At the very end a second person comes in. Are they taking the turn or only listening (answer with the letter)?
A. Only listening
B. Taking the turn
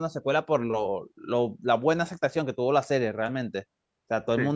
A